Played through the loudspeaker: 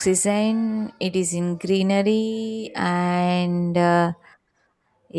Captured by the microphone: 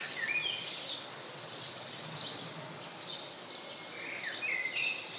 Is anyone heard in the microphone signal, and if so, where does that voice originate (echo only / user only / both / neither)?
neither